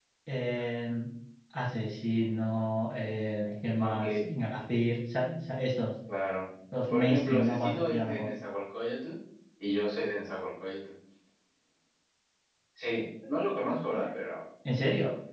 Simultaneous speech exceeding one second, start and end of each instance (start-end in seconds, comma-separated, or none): 6.9-8.3